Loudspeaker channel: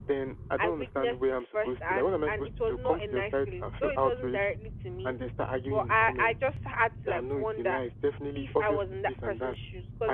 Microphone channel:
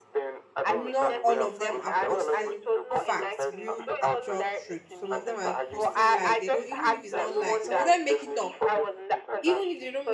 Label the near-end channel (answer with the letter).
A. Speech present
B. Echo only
A